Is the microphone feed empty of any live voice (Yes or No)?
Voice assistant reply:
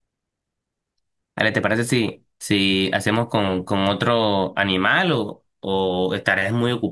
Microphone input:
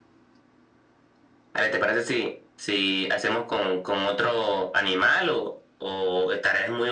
Yes